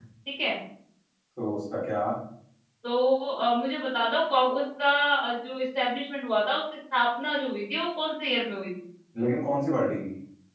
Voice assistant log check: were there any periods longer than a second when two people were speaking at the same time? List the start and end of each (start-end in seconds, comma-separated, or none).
none